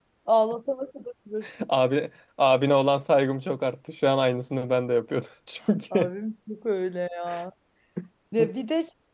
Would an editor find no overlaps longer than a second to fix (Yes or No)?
Yes